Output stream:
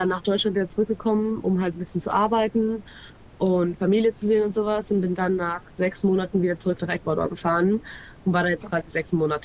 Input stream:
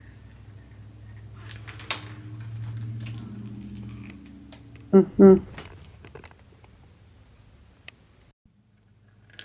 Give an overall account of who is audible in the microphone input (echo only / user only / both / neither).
user only